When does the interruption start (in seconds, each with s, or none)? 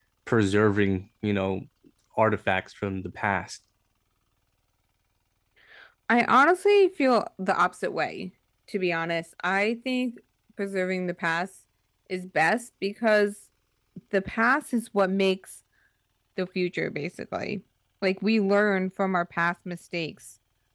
none